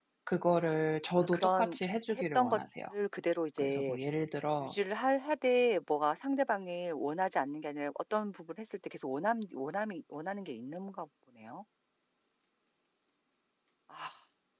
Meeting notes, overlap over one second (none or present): present